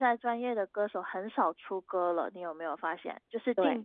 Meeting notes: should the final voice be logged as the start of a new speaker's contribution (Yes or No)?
No